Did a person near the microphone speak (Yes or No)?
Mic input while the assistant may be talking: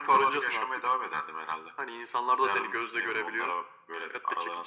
No